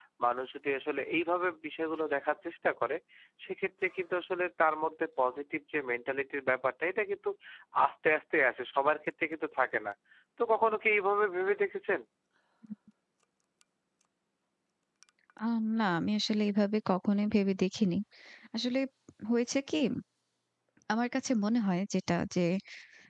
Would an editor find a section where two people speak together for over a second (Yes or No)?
No